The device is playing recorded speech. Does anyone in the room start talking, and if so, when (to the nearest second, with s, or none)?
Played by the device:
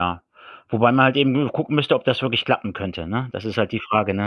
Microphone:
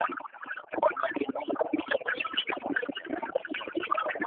none